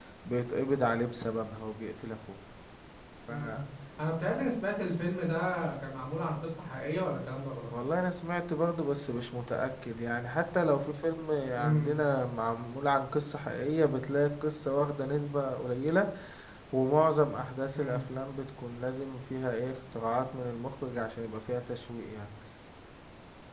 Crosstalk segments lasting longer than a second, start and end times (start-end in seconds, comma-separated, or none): none